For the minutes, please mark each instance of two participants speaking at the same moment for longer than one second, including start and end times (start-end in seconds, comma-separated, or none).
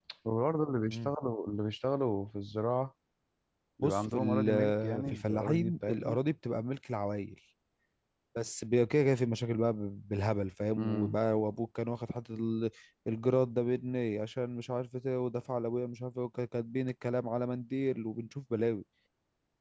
3.8-6.2